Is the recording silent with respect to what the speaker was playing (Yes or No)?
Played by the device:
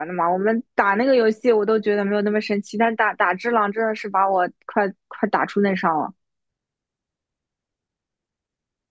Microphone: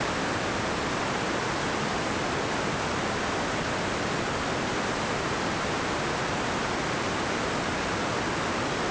Yes